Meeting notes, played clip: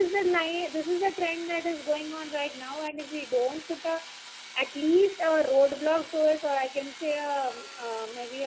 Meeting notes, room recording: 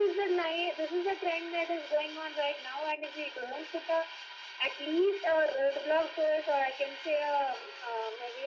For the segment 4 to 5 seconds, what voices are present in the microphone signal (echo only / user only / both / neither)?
echo only